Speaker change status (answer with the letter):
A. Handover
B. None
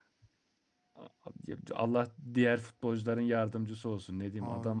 B